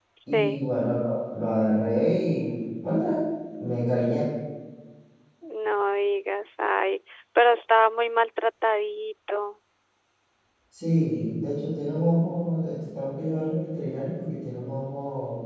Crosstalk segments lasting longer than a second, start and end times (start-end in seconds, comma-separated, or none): none